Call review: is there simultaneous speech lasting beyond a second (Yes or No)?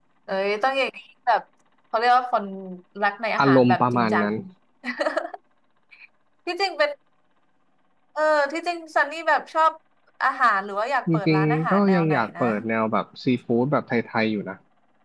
Yes